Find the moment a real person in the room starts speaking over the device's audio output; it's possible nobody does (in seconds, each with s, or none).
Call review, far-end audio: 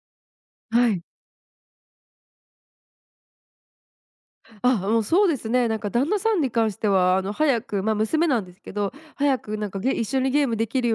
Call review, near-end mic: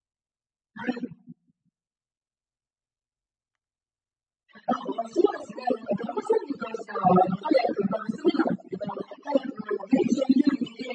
none